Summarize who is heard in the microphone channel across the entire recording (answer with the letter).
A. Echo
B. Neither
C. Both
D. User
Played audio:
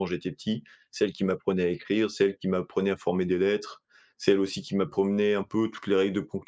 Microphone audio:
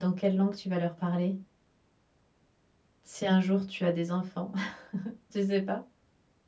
D